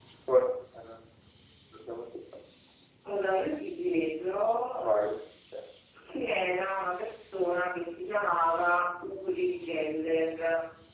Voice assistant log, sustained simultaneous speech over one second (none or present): none